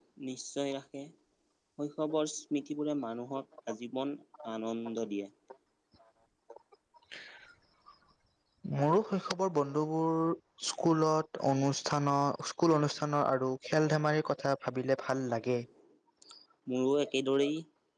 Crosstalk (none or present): none